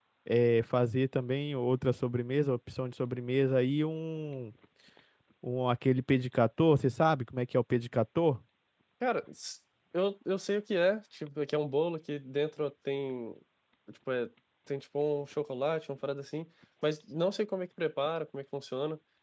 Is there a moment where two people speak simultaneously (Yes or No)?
No